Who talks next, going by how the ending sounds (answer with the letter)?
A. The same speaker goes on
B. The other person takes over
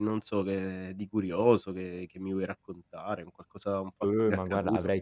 B